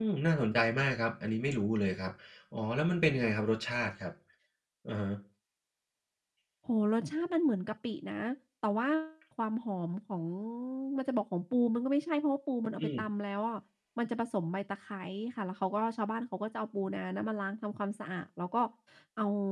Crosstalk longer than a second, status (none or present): none